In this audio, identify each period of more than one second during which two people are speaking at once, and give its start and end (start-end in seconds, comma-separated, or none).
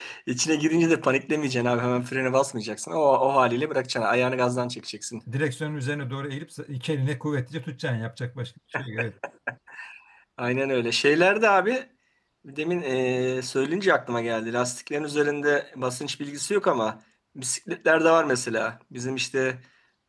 none